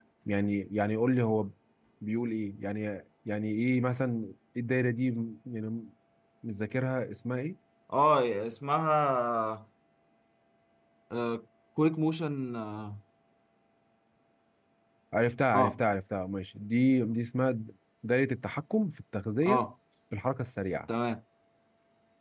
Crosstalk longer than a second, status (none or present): none